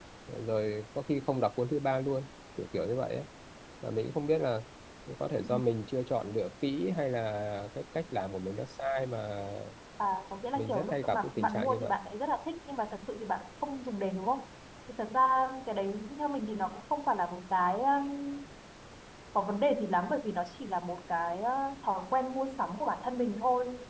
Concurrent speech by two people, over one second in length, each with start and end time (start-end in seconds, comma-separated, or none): 10.6-11.9